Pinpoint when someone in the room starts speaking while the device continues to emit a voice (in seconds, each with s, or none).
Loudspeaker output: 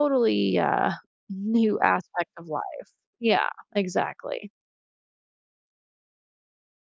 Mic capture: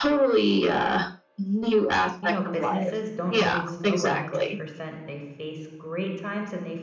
2.2 s